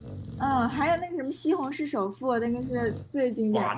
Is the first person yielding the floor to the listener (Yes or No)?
Yes